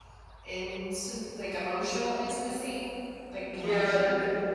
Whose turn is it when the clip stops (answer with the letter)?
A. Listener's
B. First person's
A